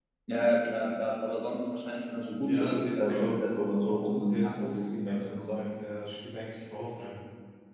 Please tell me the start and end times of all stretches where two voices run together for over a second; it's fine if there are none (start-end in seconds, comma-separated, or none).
2.5-5.6